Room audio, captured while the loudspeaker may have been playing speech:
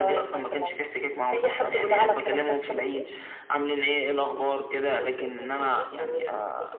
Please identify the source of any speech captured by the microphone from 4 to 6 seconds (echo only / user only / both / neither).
both